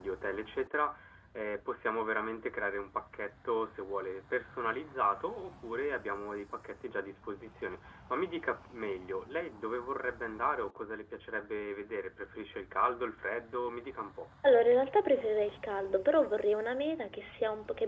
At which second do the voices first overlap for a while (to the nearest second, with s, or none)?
none